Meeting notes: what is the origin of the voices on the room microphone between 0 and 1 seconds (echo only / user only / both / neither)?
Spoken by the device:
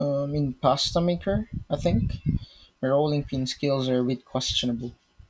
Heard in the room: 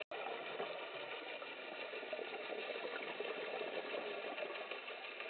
neither